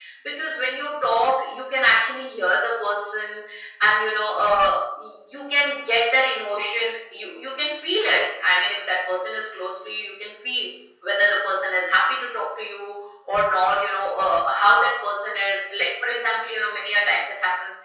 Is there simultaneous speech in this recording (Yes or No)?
No